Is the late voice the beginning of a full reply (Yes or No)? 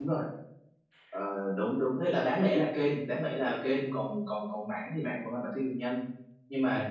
No